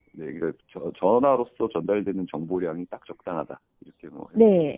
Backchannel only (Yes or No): No